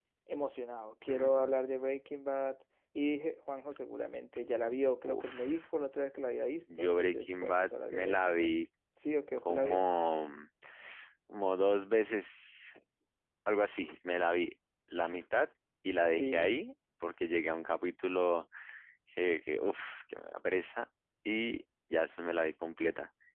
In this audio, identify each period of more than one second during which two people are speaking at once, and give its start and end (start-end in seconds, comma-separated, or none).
6.8-8.5